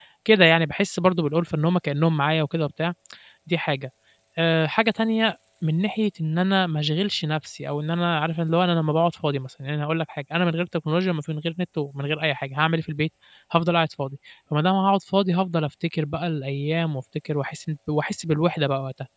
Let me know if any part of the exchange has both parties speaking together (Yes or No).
No